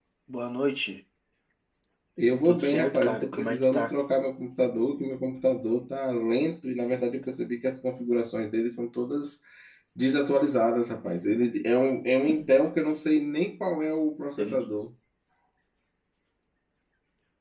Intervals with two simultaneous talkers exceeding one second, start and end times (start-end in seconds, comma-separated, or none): 2.4-3.9